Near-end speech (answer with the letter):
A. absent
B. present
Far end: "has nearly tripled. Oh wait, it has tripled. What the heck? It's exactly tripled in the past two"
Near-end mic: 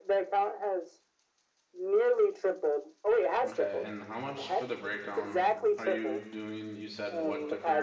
B